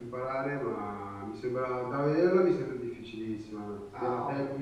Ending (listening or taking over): taking over